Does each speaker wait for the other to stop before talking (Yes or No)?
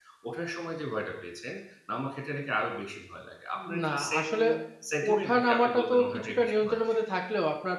No